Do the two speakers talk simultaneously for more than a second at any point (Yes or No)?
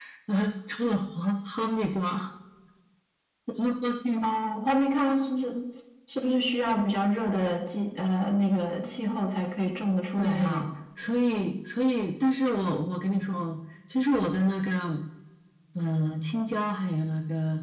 No